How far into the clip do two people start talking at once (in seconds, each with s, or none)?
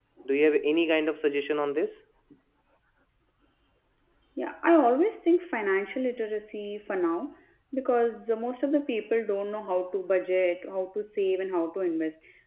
none